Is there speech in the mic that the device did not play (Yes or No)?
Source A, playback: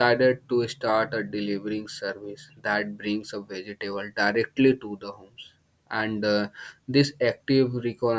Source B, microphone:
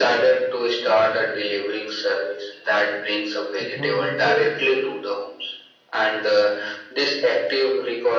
Yes